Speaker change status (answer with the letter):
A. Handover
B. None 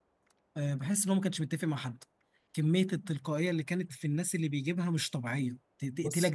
A